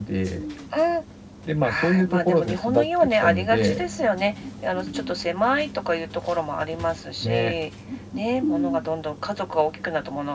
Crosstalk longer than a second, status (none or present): present